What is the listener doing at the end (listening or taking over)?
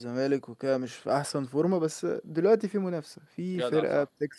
listening